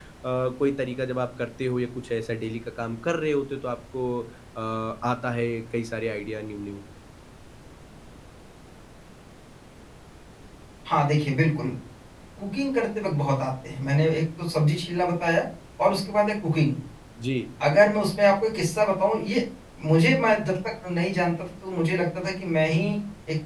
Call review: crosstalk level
none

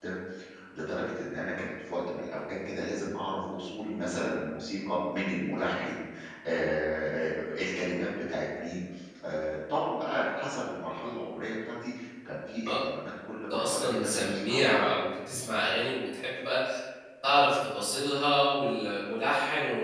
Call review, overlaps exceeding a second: present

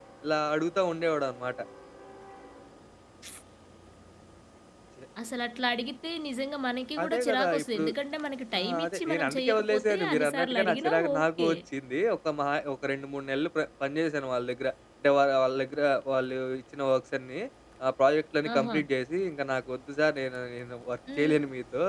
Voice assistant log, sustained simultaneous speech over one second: present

